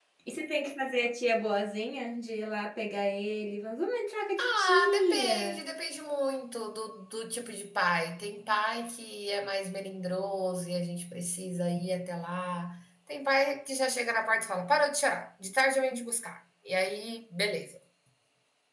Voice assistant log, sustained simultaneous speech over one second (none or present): present